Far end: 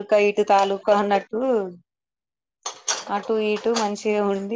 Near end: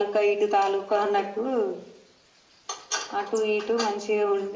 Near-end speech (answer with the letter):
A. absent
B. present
A